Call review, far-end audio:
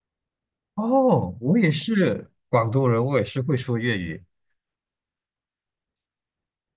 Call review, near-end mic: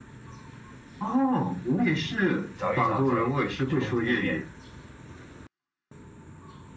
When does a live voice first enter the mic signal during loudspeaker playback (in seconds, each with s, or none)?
2.6 s